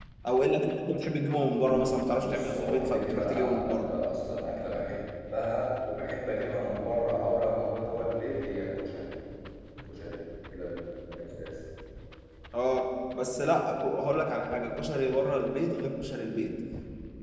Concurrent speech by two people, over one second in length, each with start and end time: 2.2-3.9

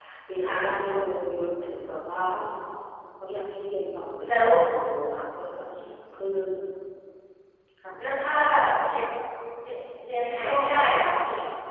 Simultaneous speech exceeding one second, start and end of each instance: none

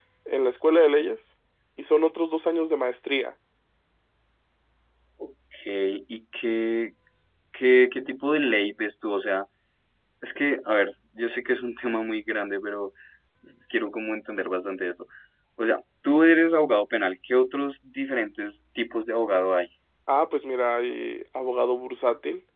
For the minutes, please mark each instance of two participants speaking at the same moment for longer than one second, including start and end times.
none

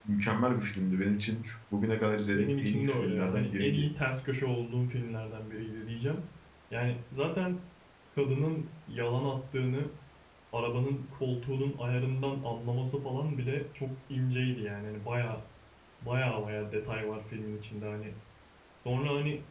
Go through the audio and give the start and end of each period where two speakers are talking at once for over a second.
2.4-3.8

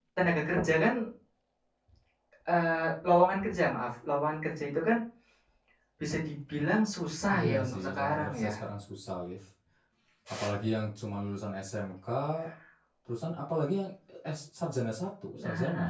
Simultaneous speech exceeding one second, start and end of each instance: 7.3-8.5

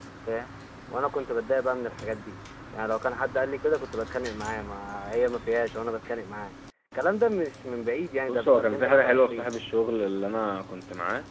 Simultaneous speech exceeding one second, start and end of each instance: 8.3-9.5

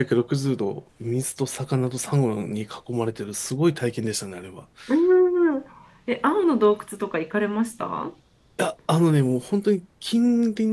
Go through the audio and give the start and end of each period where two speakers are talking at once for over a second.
none

